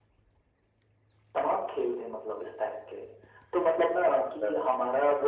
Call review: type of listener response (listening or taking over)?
listening